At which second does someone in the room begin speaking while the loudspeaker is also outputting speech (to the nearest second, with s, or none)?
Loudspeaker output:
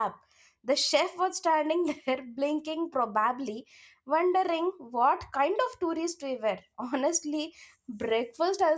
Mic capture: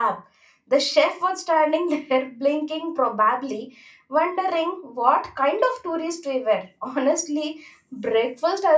none